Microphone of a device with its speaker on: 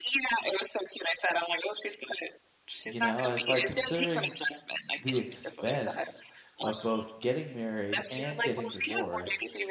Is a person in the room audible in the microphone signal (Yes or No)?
Yes